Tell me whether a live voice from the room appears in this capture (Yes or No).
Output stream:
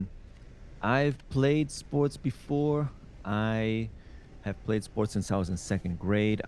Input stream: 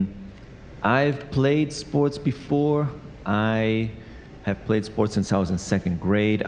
No